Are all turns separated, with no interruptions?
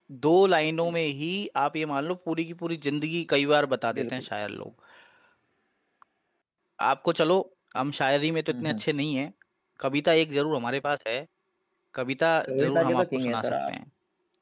No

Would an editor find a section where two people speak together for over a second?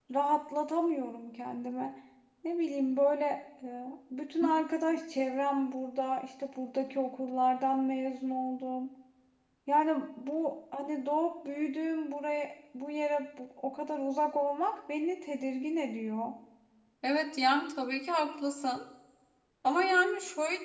No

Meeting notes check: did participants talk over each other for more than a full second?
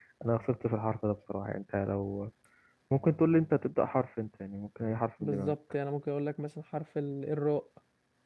No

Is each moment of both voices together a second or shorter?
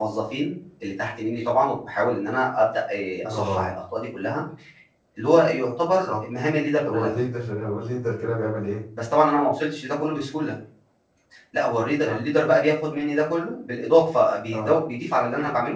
Yes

